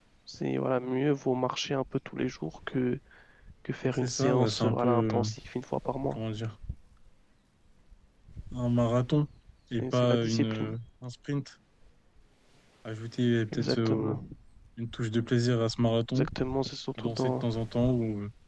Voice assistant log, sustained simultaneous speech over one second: present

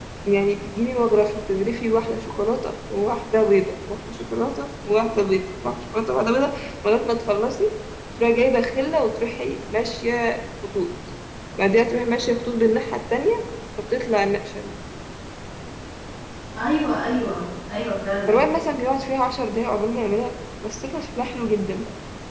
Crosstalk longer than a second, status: none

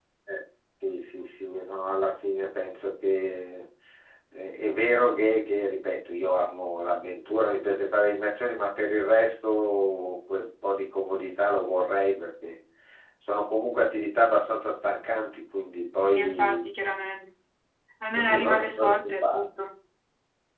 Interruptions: present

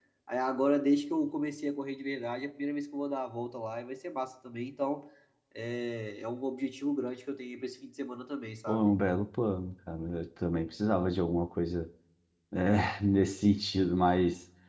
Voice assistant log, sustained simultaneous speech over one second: none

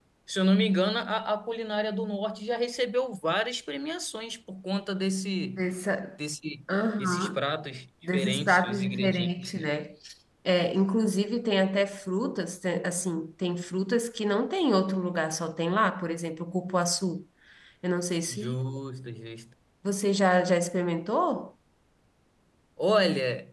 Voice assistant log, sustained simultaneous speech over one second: present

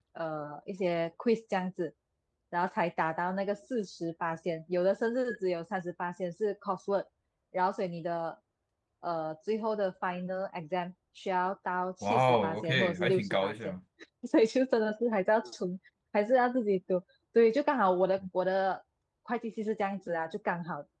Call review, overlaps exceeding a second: present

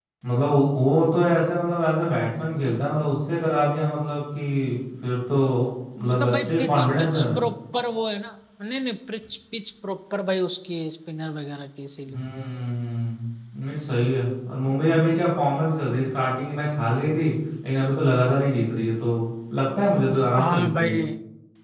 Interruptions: present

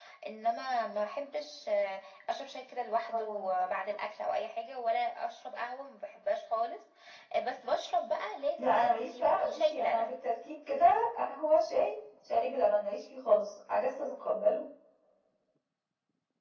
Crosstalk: present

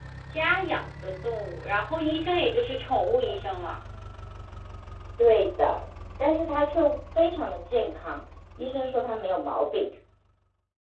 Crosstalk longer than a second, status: none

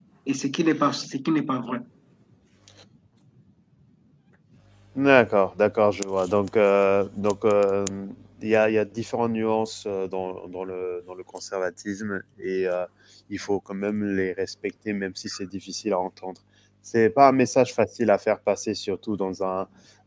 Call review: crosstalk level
none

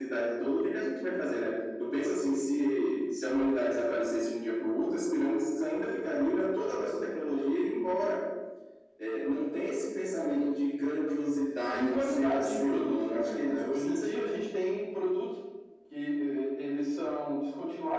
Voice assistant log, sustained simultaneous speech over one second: present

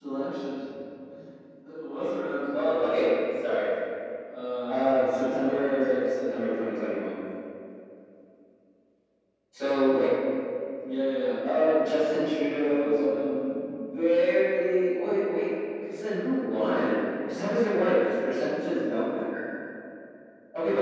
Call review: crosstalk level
present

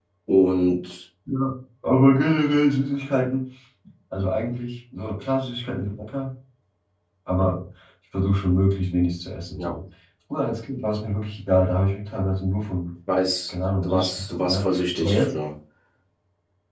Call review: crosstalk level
present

